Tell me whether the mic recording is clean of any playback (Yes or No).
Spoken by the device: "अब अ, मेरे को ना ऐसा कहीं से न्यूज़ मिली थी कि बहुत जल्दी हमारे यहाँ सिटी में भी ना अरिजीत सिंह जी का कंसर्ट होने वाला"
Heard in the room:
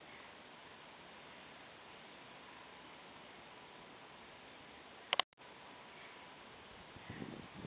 Yes